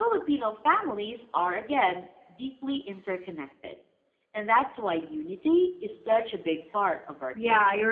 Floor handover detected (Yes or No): Yes